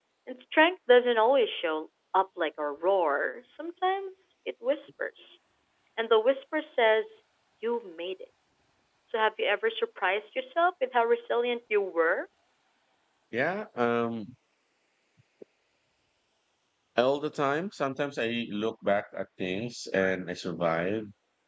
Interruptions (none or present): none